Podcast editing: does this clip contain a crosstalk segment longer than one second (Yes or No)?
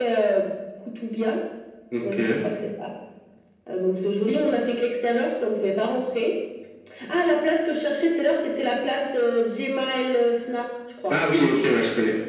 No